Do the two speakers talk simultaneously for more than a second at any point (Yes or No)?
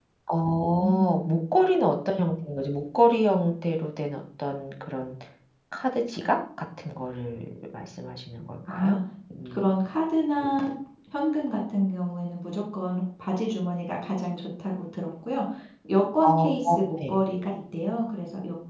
No